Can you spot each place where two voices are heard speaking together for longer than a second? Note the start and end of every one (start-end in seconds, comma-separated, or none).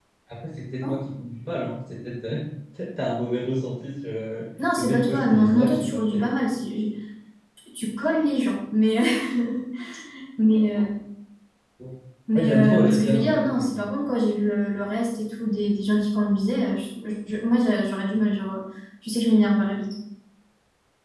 4.8-6.2, 12.3-13.9